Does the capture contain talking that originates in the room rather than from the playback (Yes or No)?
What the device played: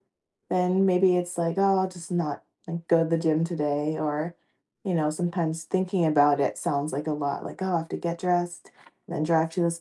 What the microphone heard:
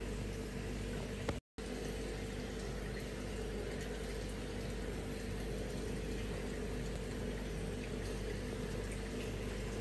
No